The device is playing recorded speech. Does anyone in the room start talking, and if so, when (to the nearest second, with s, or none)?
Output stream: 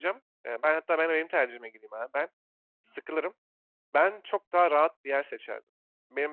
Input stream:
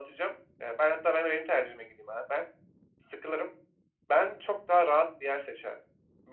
none